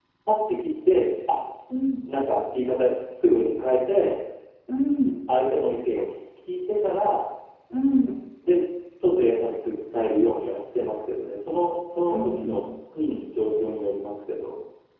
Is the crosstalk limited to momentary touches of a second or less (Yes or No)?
Yes